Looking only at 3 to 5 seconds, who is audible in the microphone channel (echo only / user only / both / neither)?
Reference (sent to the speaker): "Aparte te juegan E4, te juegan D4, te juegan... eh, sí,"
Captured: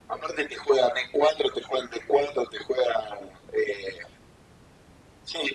echo only